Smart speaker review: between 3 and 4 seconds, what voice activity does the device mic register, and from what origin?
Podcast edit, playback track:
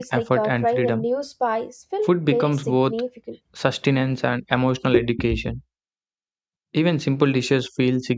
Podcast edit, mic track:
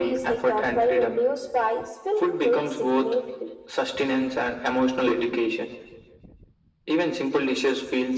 echo only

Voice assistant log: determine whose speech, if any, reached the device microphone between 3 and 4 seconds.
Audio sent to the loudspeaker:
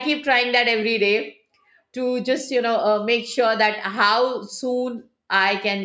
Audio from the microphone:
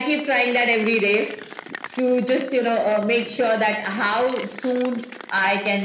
echo only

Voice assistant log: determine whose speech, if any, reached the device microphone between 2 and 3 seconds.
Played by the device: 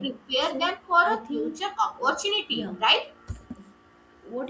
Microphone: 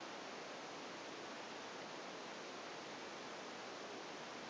neither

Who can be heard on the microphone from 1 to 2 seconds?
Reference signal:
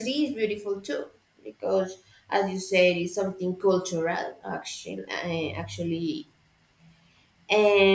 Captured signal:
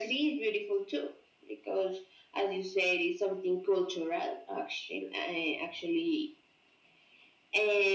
echo only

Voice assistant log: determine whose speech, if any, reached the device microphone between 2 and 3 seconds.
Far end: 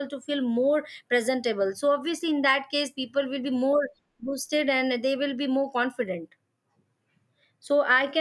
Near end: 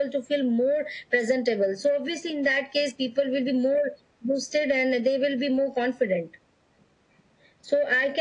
echo only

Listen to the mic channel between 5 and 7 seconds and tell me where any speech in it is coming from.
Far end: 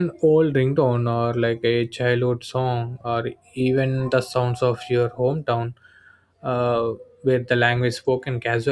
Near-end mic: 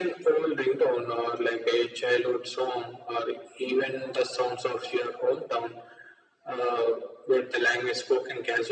echo only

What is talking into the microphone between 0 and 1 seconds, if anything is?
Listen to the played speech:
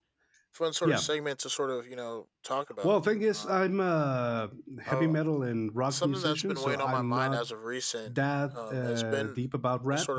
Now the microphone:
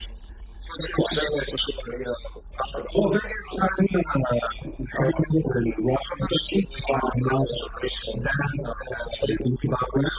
echo only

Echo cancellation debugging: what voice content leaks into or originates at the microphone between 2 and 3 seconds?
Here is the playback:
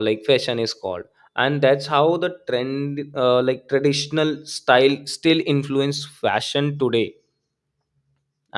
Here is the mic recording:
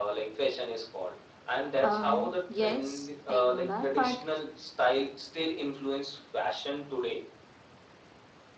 both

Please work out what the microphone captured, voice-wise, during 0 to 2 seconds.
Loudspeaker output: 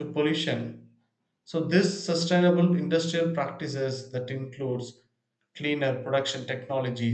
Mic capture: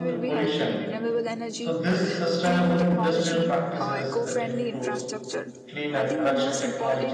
both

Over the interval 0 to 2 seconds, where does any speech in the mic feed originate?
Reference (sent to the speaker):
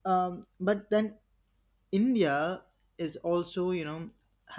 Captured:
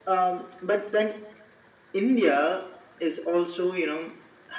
echo only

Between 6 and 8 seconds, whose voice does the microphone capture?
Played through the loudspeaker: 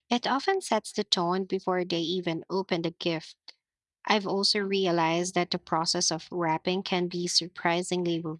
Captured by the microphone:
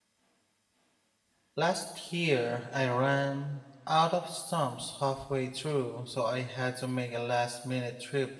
user only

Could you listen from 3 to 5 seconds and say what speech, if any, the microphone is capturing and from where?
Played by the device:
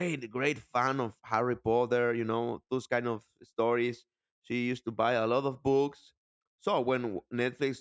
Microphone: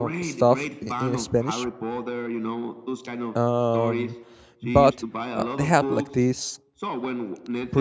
both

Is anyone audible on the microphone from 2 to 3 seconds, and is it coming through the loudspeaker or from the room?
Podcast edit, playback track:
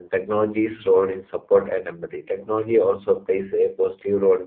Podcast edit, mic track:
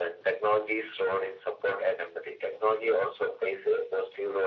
echo only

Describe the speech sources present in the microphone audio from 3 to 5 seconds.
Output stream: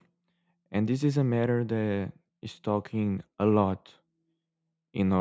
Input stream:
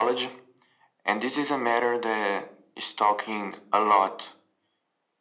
echo only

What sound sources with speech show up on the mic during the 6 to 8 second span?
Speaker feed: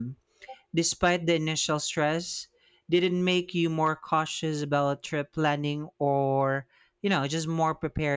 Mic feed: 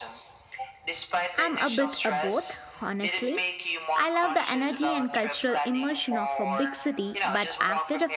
both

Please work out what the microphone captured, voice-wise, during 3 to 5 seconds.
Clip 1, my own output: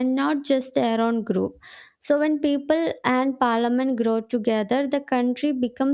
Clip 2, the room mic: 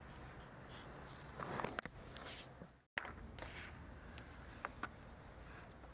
neither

